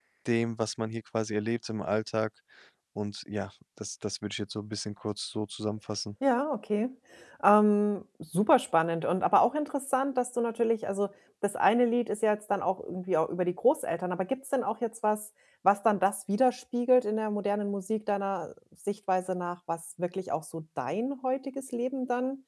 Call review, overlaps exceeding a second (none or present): none